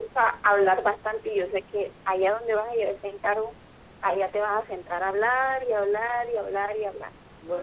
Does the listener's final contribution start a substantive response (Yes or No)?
Yes